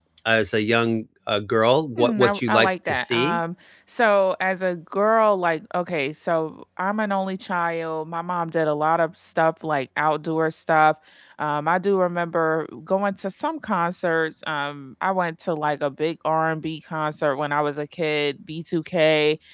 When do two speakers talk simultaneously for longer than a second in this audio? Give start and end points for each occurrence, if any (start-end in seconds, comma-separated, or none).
2.0-3.4